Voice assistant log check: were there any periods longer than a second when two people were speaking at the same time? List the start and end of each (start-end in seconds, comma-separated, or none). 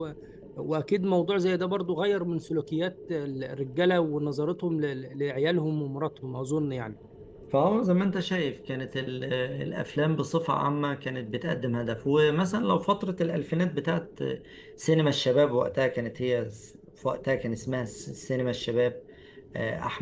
none